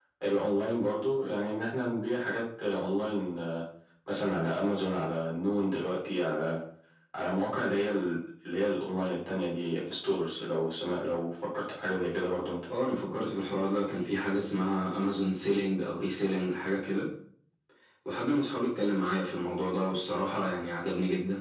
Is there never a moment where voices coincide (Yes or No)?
Yes